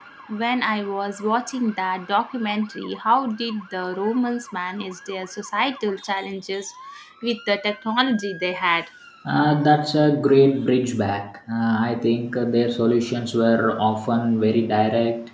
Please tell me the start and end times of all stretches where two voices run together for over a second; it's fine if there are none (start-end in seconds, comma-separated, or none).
none